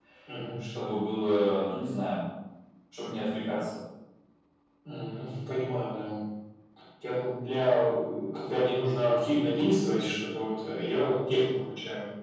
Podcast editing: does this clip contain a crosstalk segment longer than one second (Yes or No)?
No